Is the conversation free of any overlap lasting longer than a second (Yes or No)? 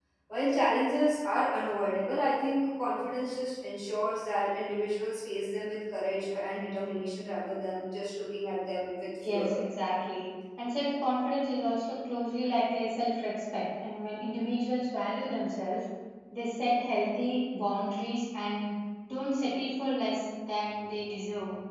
Yes